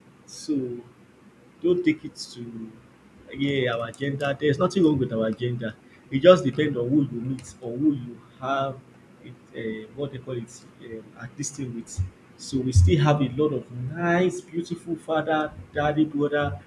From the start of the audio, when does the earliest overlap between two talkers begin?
none

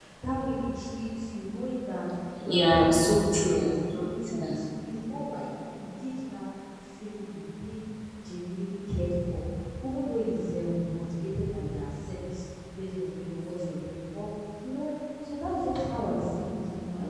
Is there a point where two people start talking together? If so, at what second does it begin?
2.4 s

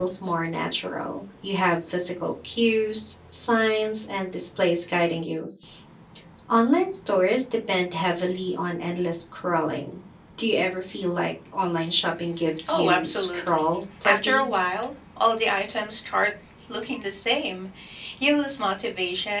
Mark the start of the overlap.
12.7 s

